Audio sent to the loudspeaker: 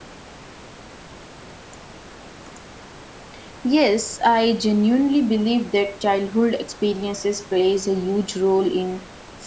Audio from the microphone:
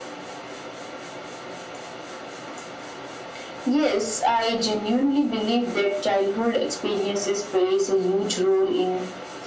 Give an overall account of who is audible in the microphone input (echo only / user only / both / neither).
echo only